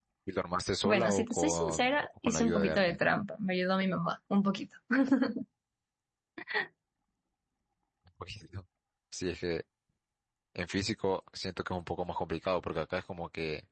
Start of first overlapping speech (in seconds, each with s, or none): 0.8 s